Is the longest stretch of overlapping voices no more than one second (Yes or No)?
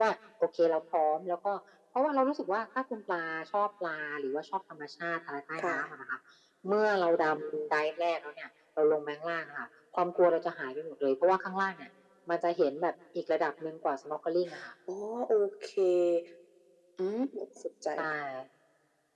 Yes